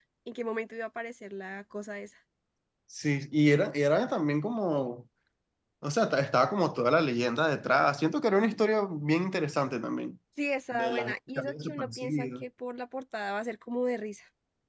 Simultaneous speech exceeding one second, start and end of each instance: 10.7-12.4

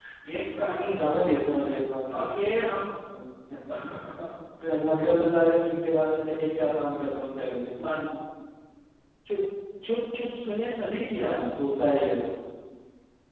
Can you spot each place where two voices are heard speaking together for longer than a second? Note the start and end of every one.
none

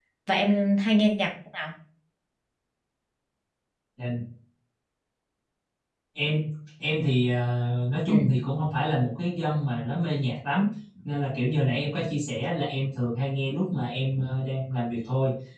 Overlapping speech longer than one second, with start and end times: none

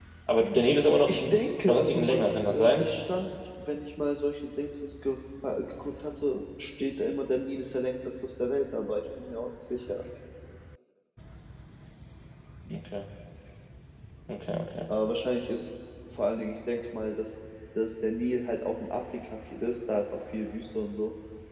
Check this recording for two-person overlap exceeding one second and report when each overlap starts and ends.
1.7-2.9

